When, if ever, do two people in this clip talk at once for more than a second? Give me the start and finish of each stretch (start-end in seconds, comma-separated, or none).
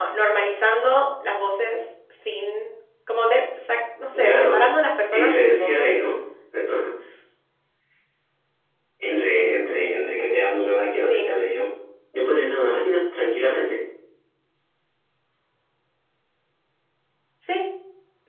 4.1-6.0